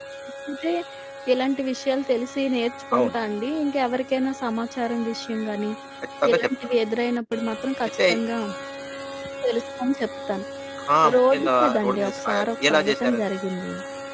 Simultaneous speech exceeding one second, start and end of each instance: 11.1-13.2

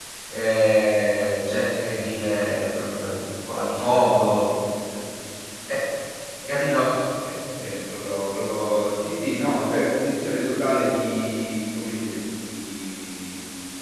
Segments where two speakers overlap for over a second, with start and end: none

